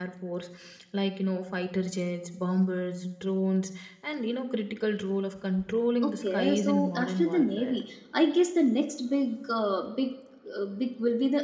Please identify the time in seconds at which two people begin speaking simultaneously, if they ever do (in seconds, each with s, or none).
6.0 s